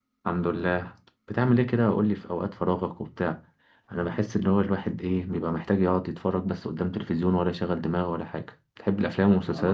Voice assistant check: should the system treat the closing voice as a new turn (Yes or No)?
Yes